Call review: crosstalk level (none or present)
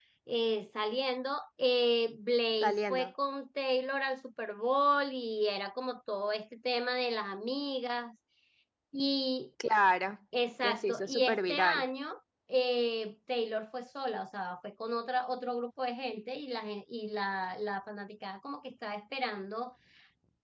present